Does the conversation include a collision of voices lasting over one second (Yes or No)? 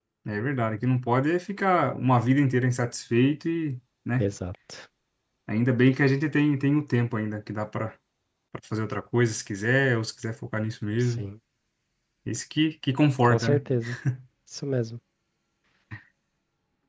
No